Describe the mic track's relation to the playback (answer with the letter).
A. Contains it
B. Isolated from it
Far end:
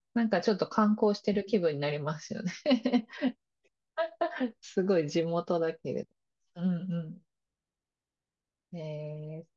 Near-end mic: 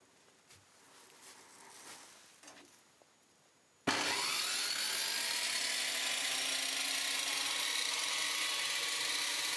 B